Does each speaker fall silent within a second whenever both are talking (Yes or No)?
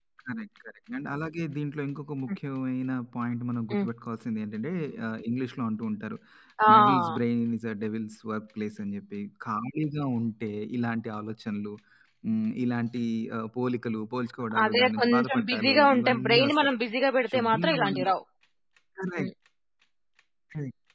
No